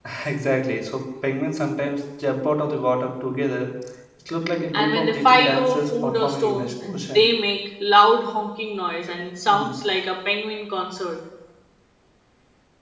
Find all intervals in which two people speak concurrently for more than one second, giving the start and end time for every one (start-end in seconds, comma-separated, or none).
4.7-6.7